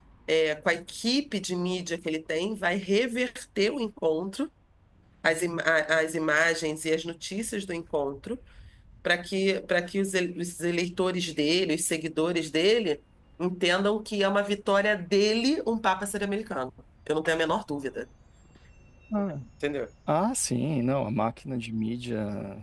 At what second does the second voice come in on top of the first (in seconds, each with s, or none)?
none